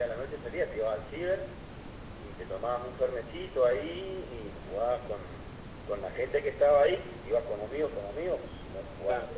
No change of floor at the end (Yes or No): No